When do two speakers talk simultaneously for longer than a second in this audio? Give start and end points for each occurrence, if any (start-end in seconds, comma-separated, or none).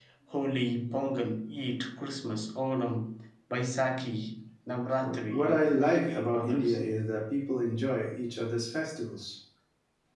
5.0-6.8